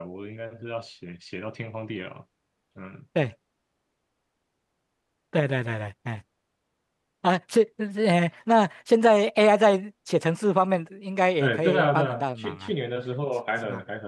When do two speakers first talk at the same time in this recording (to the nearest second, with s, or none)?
11 s